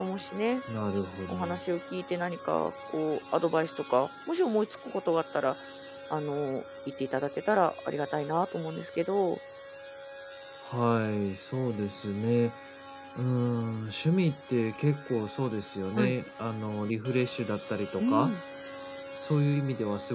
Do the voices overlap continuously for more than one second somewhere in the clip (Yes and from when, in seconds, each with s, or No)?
No